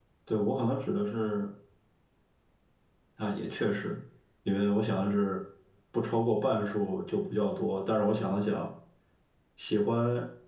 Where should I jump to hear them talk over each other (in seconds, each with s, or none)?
none